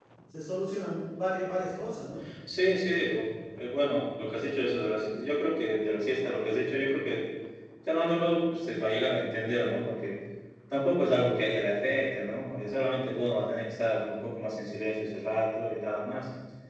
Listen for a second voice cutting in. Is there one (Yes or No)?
No